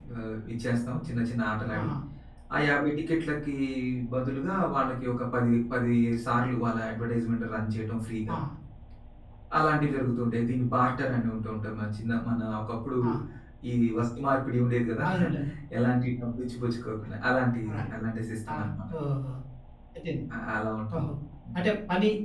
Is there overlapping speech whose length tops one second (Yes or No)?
No